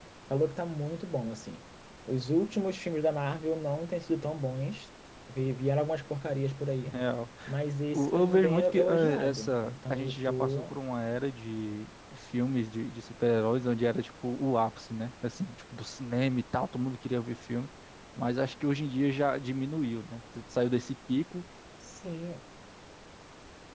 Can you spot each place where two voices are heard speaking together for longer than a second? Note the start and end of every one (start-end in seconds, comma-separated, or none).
7.9-10.7